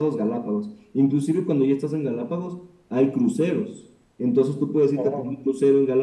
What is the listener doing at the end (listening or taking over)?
listening